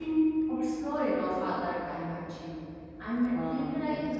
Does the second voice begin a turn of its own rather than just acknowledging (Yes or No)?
No